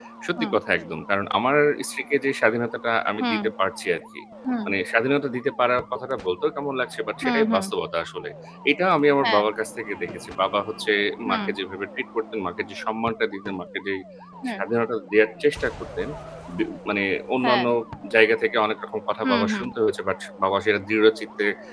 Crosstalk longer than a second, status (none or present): none